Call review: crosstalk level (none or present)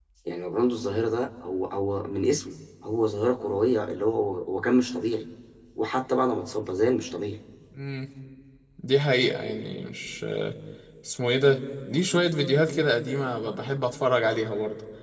none